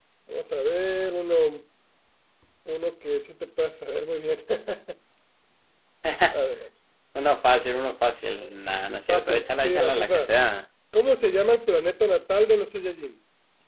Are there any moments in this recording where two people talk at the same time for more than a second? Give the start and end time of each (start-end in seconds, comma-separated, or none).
9.1-10.3